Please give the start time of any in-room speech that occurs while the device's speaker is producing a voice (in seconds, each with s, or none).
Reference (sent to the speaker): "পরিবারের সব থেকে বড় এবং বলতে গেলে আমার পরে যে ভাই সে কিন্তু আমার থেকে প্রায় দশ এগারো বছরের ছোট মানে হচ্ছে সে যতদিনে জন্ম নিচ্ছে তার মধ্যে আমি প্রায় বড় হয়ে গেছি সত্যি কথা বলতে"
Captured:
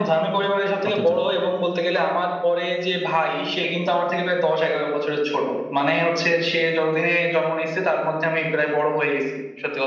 0.8 s